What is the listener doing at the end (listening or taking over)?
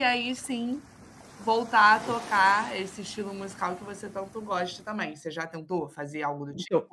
taking over